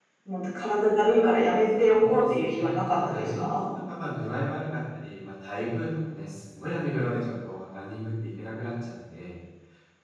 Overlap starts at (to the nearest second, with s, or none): 2 s